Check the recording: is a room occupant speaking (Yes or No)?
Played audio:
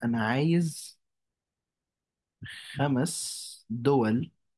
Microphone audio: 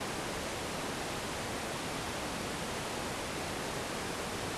No